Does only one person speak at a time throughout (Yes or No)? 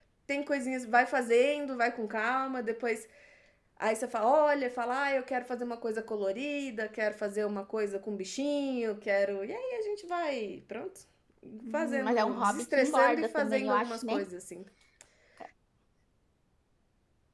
No